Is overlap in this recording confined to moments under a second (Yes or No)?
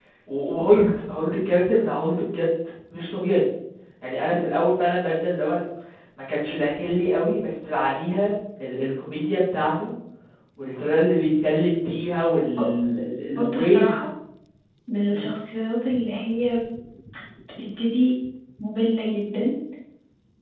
Yes